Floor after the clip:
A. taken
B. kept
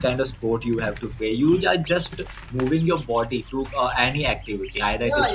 A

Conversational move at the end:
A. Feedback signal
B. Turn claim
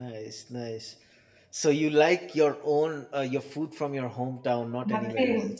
B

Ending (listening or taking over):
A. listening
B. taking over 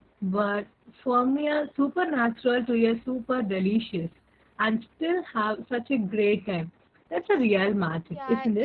B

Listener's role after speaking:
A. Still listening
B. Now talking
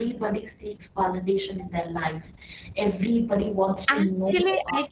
B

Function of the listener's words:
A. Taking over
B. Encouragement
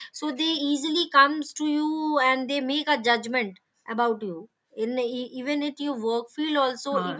A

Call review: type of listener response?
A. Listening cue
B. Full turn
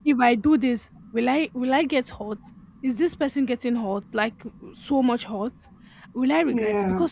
A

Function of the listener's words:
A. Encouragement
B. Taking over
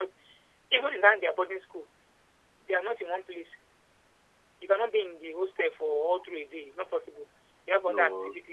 A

